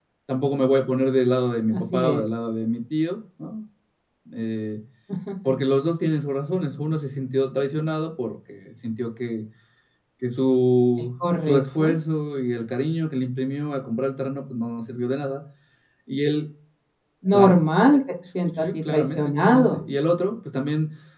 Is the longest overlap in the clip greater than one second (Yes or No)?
Yes